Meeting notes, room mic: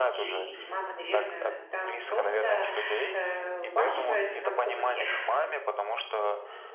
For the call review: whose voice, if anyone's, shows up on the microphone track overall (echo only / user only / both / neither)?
both